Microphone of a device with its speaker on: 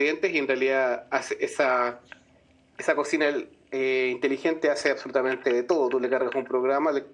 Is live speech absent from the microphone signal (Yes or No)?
Yes